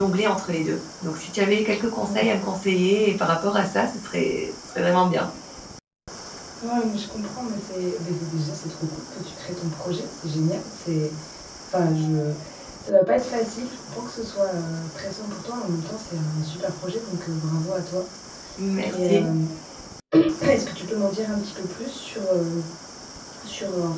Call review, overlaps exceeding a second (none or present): none